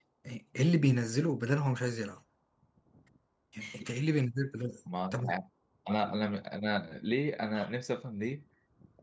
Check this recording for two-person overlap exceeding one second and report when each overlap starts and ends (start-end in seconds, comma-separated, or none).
none